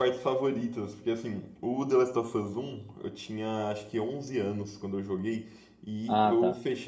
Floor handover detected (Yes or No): No